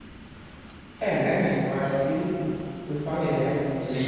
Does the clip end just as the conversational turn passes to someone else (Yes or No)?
Yes